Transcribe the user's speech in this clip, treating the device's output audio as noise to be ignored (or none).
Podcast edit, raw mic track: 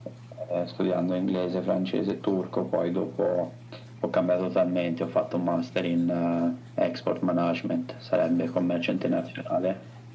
none